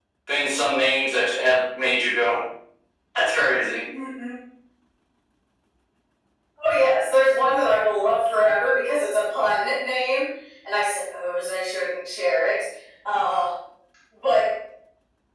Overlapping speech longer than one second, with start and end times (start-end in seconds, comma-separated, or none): none